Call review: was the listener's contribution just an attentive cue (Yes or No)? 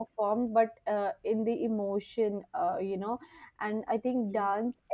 Yes